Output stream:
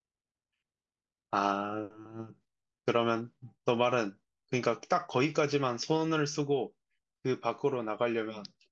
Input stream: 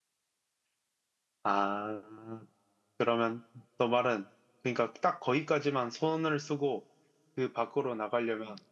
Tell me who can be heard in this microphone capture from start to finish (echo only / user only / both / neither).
echo only